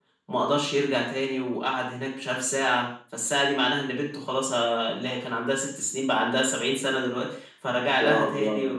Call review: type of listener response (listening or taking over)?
listening